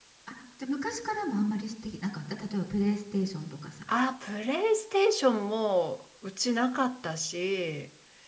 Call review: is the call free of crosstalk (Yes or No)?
Yes